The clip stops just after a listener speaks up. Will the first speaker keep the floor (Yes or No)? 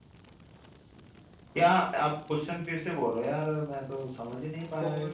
No